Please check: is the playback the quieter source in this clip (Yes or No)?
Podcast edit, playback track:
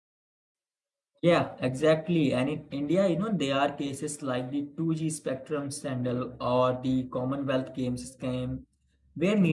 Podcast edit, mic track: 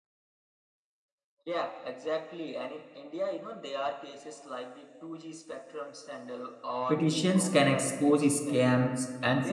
Yes